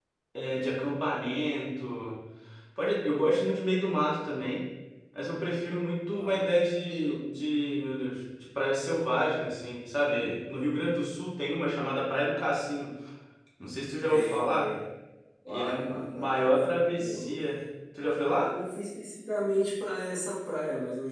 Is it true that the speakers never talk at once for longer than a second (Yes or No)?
No